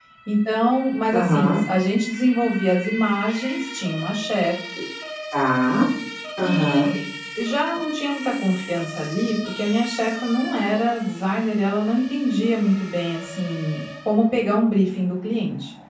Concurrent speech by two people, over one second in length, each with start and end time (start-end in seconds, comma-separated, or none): none